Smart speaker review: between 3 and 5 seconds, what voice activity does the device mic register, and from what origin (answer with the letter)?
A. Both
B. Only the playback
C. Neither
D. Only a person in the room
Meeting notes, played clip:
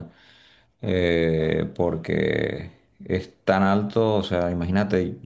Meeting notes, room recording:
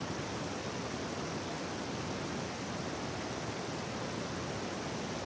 C